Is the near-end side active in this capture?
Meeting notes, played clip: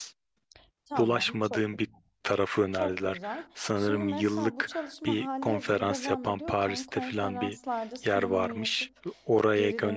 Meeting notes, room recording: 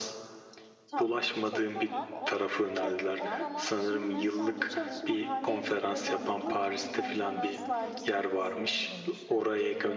Yes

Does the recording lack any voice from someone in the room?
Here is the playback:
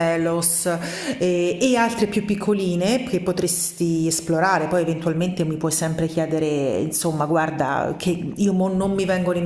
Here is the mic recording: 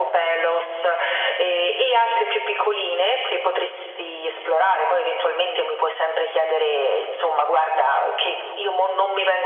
Yes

